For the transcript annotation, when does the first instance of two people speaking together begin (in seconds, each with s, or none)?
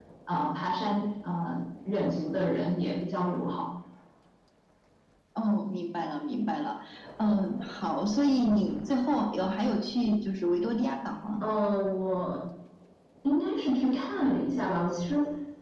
none